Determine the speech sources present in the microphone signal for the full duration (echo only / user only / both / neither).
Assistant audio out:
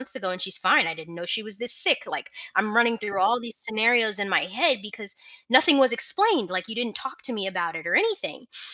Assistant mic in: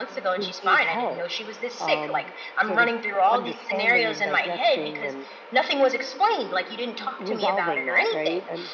both